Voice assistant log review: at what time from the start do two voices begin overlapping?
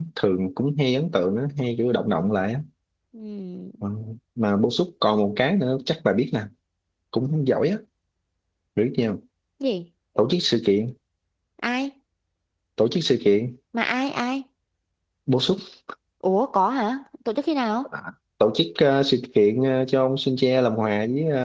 none

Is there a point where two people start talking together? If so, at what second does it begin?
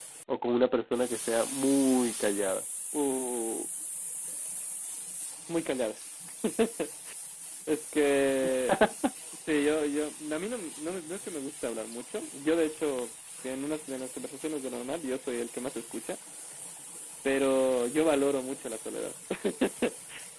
none

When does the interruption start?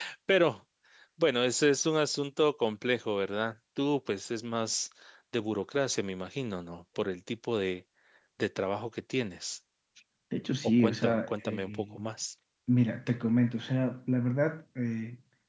10.6 s

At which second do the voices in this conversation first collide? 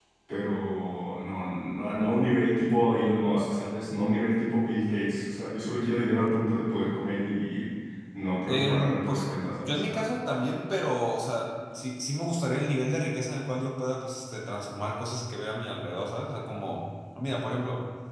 8.5 s

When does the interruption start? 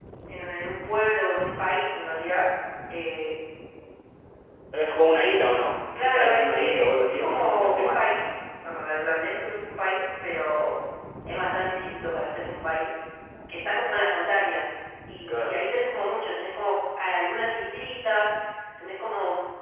6.0 s

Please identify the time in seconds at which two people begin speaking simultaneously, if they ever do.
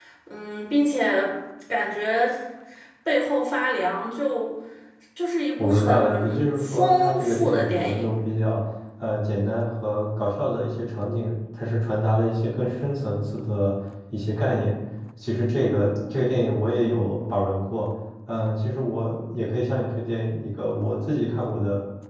5.6 s

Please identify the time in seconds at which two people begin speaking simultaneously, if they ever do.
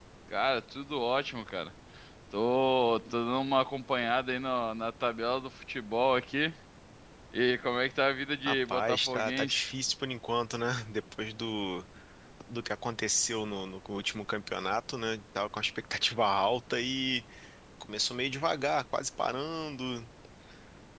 8.4 s

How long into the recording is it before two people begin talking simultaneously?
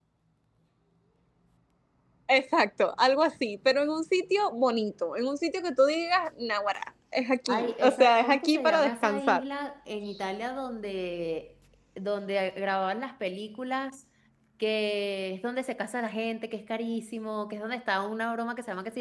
7.5 s

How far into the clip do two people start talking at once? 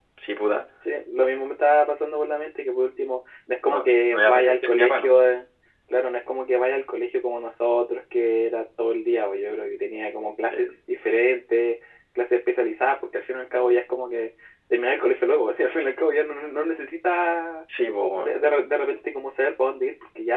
3.7 s

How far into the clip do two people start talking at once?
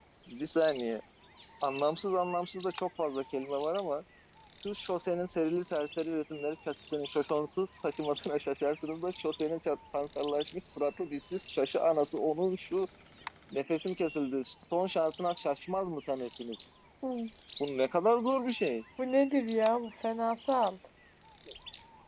none

